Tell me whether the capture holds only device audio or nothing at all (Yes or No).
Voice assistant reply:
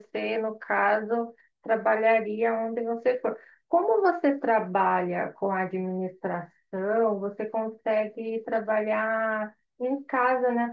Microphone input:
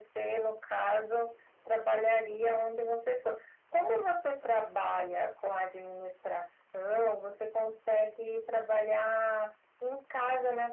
Yes